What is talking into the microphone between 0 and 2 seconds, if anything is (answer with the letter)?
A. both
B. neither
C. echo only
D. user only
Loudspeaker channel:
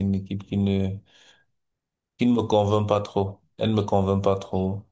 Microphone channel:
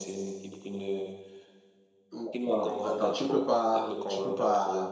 C